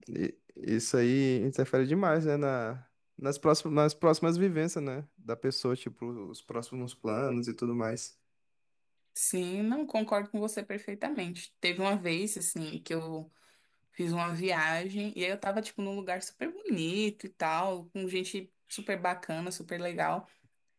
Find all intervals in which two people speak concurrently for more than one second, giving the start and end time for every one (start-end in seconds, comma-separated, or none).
none